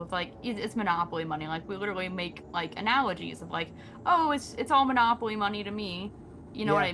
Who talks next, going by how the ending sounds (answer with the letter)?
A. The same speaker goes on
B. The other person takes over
A